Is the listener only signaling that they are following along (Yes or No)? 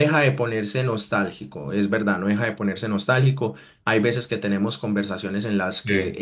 Yes